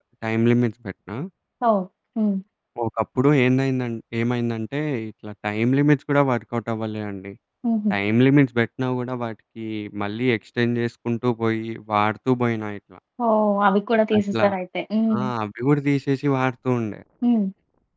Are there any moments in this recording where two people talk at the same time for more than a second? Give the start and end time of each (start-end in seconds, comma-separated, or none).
none